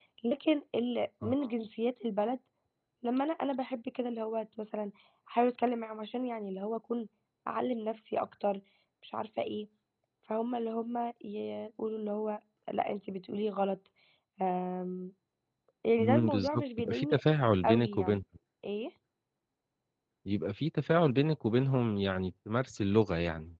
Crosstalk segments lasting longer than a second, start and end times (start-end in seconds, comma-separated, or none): 16.0-17.2